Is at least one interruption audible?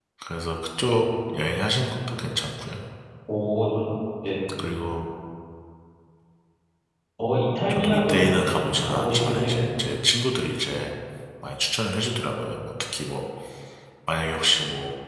Yes, from 7.7 s

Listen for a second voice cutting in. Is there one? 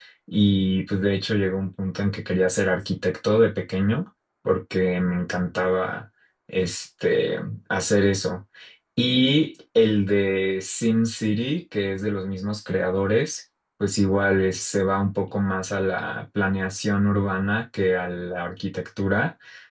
No

